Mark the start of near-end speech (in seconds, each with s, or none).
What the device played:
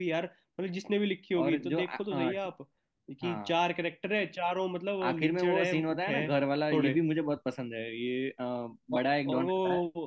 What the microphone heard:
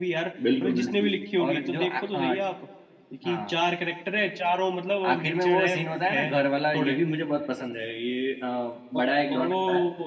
0.5 s